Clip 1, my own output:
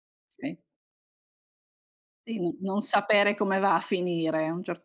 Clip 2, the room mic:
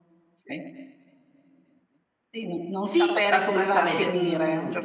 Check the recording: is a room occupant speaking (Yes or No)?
Yes